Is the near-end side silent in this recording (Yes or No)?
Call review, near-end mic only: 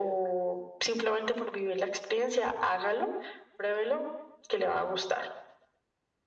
Yes